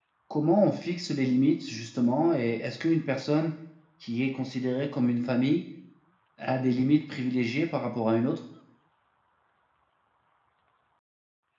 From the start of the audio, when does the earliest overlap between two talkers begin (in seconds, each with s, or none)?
none